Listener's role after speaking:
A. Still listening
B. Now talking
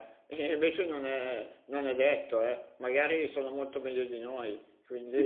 B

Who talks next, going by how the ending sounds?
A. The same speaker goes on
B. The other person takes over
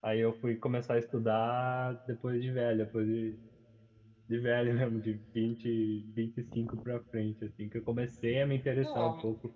A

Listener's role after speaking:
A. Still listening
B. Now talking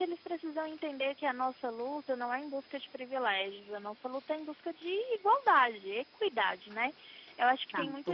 A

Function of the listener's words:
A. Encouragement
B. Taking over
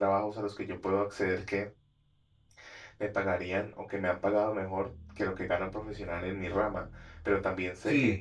A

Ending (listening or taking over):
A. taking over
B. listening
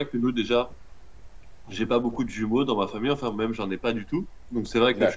B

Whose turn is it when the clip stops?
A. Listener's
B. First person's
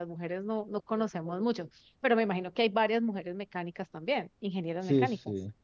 A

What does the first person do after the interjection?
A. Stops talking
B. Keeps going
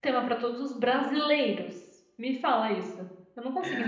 A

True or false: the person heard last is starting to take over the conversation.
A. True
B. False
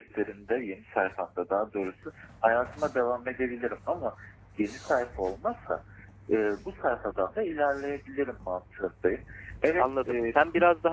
A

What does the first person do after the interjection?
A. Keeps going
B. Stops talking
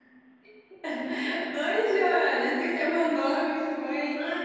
B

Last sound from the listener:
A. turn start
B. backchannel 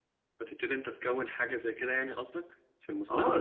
A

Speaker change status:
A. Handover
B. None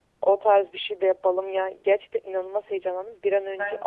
B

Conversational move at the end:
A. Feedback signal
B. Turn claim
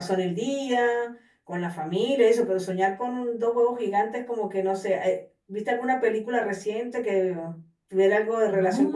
B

